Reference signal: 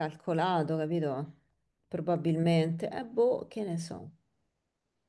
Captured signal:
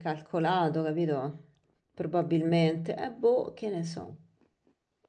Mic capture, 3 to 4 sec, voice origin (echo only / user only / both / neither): echo only